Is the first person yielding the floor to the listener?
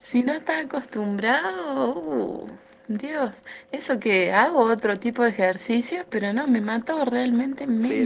Yes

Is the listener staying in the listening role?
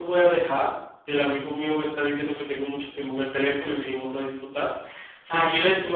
Yes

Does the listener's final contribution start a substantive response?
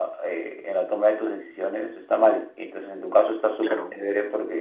No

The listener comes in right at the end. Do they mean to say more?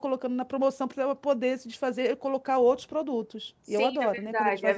Yes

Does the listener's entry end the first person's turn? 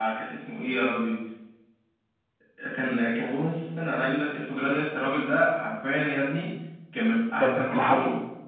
Yes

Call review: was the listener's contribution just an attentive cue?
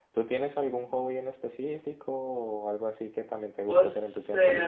No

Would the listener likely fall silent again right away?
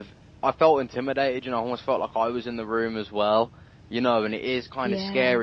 Yes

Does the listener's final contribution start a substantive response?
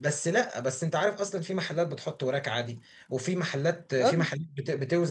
No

